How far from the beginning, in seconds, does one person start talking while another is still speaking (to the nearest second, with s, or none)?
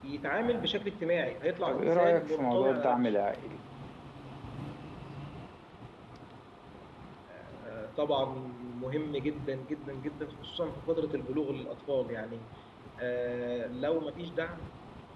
2 s